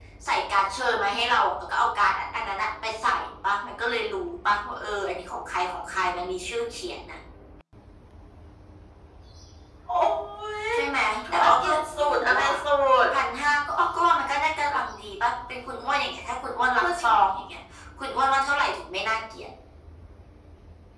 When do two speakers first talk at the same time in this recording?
11.3 s

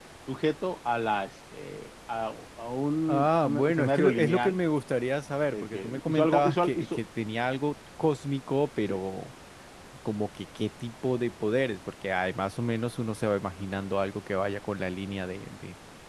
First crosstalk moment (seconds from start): 3.1 s

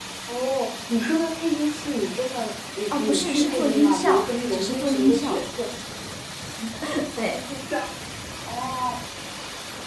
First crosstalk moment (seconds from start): 2.9 s

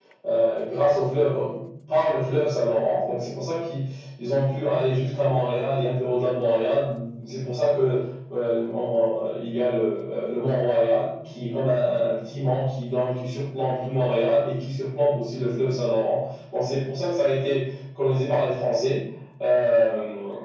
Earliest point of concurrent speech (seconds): none

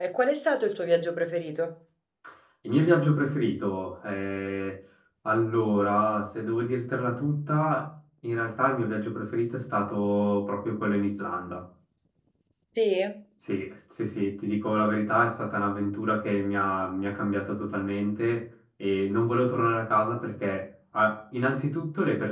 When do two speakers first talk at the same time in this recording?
none

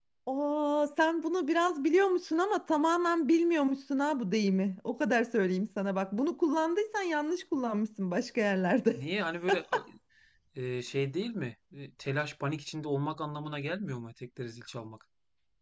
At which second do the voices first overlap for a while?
none

